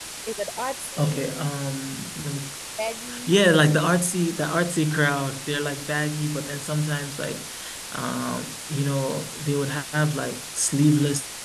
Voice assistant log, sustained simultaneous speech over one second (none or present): none